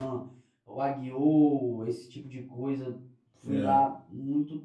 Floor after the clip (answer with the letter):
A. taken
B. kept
B